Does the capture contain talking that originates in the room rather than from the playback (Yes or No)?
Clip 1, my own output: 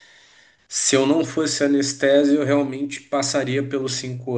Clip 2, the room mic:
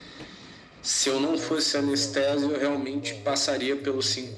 Yes